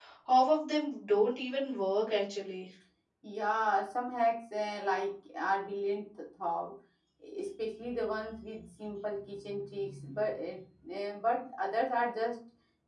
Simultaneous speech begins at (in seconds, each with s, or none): none